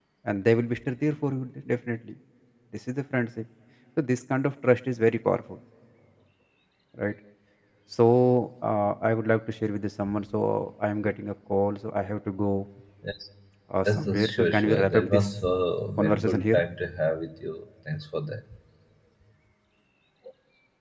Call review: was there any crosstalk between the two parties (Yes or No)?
Yes